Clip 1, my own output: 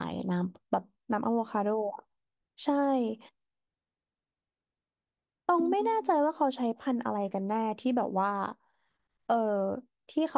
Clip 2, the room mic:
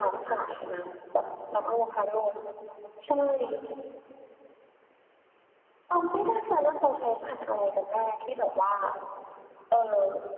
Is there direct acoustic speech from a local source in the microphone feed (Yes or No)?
No